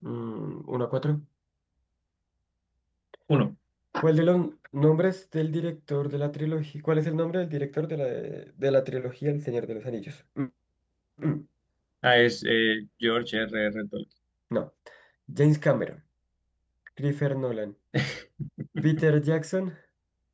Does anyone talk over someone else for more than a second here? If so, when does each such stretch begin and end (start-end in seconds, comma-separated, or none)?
none